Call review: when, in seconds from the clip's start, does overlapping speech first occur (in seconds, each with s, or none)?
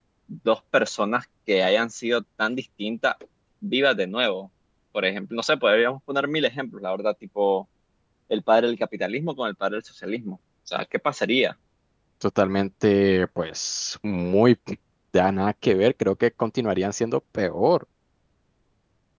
none